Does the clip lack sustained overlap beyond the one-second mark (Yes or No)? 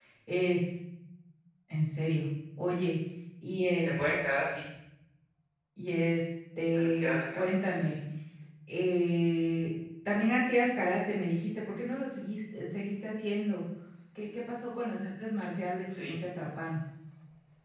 No